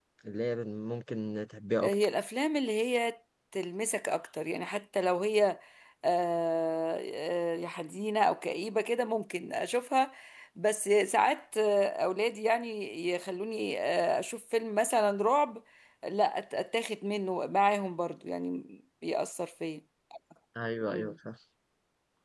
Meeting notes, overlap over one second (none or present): none